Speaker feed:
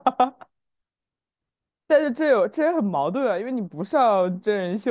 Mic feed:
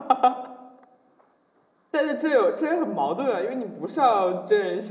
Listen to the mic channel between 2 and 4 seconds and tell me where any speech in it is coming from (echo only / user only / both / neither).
echo only